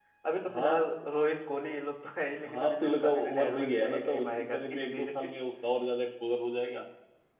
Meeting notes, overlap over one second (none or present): present